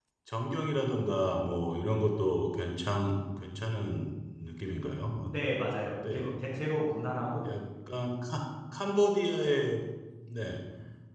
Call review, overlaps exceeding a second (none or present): none